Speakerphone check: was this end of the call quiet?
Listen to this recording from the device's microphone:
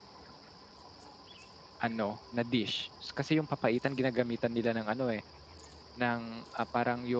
No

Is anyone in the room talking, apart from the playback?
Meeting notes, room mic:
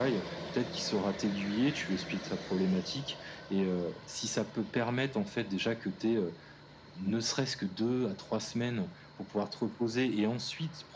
No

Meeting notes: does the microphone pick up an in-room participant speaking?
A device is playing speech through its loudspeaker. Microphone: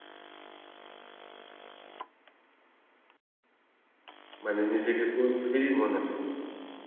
Yes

